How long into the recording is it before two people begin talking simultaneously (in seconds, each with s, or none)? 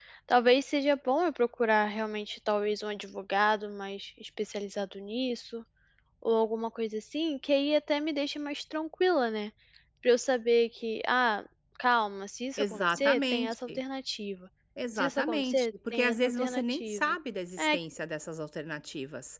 12.6 s